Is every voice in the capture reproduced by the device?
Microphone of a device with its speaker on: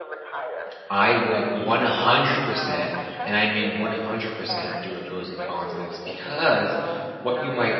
No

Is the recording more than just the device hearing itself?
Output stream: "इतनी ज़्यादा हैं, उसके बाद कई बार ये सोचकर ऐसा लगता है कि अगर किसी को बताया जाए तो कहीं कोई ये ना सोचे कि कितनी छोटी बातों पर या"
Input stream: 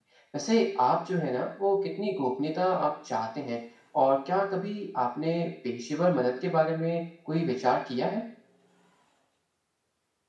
Yes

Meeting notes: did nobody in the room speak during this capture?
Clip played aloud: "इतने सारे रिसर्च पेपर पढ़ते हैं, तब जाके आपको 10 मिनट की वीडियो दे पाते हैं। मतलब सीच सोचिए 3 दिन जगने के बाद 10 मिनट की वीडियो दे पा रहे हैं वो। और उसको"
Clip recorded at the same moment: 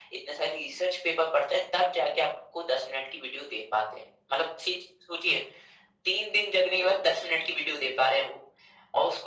Yes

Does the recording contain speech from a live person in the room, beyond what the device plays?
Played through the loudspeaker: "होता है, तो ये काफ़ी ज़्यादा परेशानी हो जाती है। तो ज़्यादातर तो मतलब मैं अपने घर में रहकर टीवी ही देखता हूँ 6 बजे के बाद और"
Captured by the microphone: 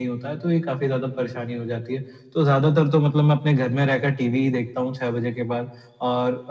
No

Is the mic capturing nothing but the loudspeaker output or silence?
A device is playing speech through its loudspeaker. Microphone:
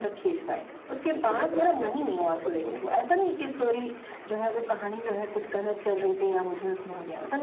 No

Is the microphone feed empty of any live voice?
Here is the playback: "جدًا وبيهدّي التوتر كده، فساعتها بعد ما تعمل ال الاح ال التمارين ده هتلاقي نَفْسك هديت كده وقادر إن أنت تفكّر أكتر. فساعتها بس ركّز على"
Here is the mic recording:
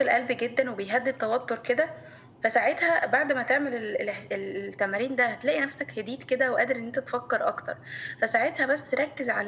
Yes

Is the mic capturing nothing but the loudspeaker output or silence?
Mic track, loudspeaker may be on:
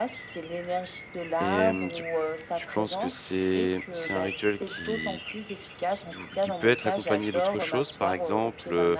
No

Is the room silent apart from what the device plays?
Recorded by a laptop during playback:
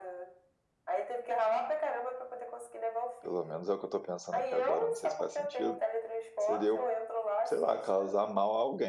No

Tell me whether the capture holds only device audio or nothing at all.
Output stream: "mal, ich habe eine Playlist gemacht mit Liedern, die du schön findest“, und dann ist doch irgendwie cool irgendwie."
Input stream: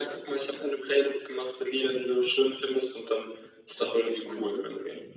No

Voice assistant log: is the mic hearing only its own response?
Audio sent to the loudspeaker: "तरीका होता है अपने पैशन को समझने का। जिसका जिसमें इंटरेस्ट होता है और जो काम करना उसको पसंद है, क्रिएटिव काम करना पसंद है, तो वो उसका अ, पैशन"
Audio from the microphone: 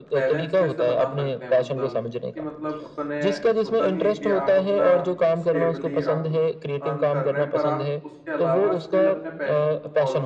No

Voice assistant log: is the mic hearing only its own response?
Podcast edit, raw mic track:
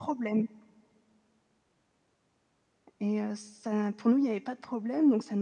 Yes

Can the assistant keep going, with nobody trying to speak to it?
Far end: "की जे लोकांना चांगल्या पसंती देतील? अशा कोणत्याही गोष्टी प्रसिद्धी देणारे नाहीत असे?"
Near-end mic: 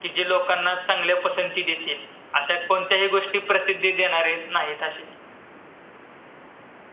Yes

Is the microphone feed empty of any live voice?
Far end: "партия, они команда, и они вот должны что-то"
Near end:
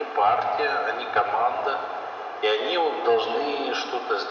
Yes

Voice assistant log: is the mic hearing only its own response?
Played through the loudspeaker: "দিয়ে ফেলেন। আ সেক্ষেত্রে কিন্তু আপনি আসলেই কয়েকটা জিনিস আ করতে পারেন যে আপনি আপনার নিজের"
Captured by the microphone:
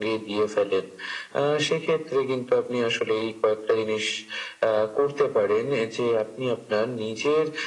Yes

